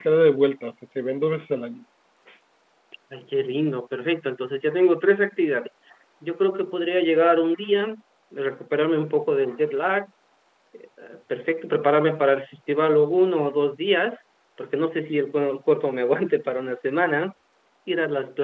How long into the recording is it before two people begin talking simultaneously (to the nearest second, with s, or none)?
none